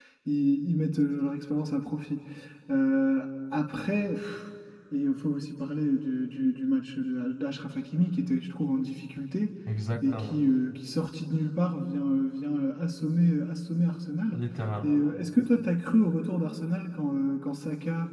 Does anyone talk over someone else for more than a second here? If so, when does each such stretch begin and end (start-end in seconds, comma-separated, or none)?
none